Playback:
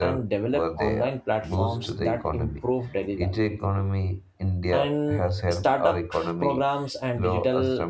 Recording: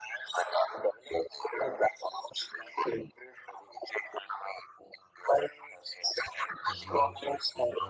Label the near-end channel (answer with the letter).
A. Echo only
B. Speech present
B